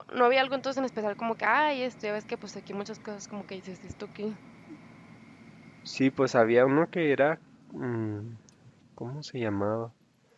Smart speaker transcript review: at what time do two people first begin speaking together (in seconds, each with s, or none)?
none